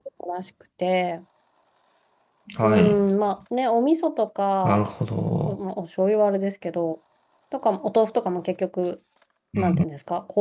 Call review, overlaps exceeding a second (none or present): none